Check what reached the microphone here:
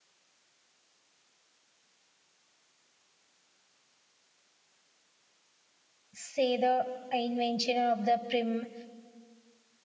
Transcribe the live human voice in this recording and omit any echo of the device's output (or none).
say, the invention of the prim